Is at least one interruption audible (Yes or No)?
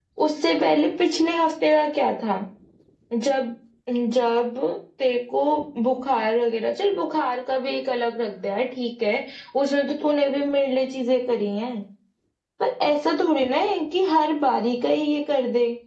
No